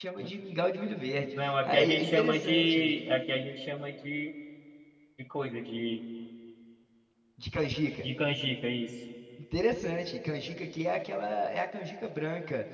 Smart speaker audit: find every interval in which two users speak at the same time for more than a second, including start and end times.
1.6-2.9

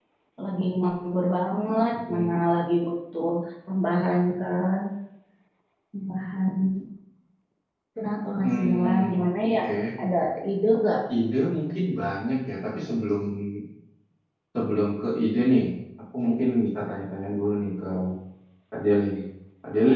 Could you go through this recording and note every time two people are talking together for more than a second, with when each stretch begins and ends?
8.4-9.6

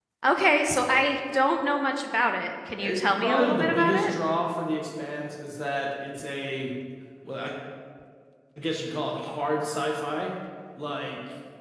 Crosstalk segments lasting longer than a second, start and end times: 2.8-4.2

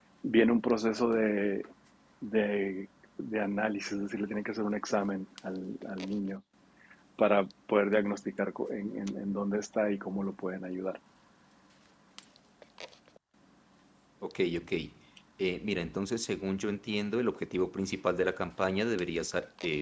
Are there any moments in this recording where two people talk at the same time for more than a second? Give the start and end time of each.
none

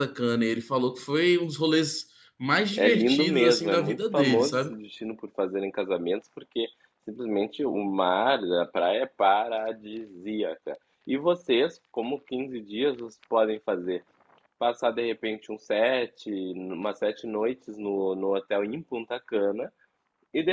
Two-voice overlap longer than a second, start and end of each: 2.8-4.7

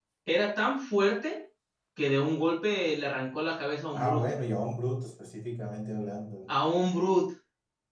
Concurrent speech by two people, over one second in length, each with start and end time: none

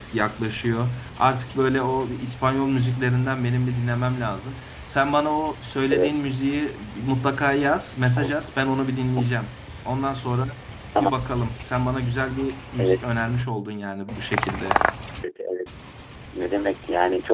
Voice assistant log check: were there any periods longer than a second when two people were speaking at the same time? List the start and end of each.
none

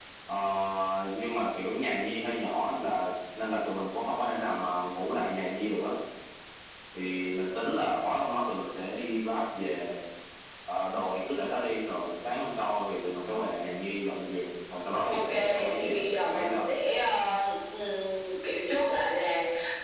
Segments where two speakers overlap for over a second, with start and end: 15.1-16.6

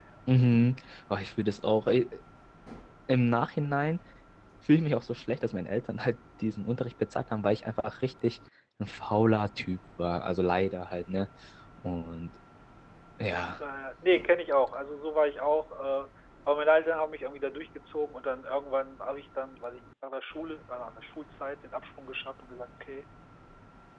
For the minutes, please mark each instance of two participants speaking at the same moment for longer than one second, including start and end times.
none

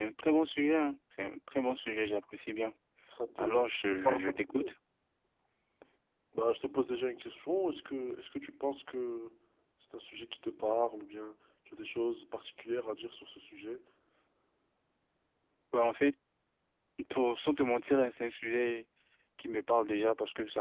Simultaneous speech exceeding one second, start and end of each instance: 3.4-4.7

